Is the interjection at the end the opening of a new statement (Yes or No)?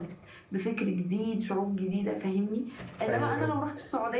No